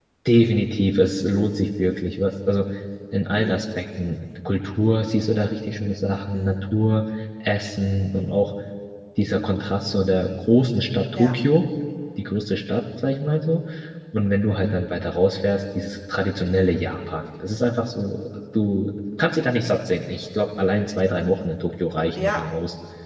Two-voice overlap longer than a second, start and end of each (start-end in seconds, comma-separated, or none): none